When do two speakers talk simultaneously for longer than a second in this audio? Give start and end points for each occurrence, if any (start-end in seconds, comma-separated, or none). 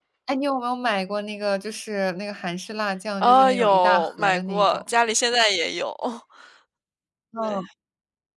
3.2-4.9